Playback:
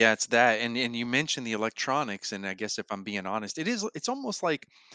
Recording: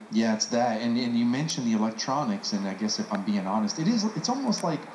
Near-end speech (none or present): none